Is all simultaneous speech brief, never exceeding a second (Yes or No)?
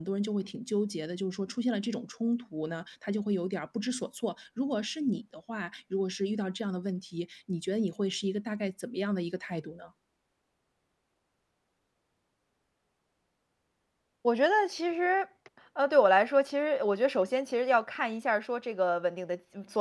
Yes